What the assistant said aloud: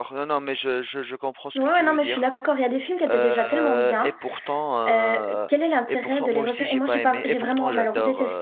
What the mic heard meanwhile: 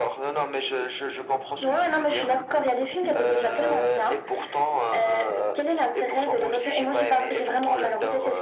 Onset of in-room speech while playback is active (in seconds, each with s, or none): none